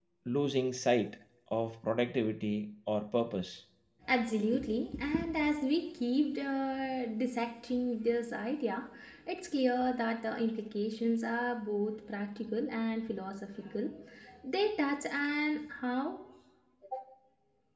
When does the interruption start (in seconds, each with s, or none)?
none